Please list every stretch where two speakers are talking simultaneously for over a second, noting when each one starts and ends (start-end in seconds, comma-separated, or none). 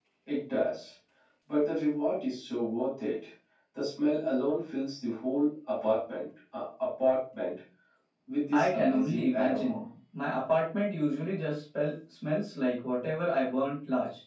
8.5-9.8